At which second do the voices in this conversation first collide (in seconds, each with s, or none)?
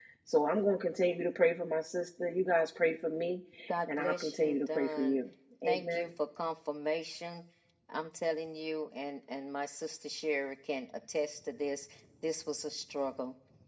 3.9 s